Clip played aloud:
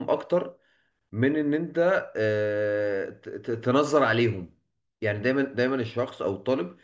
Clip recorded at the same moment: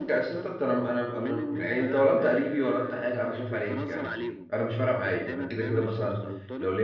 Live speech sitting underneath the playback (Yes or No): No